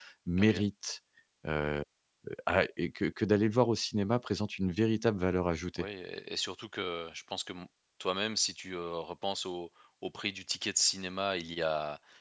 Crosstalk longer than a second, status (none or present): none